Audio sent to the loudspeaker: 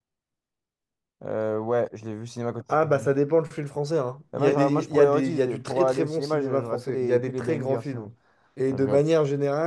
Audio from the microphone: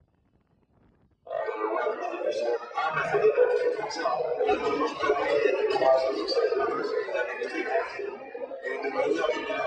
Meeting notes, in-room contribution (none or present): none